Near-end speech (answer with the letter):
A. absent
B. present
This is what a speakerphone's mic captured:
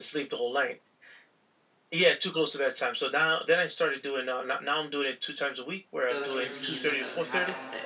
B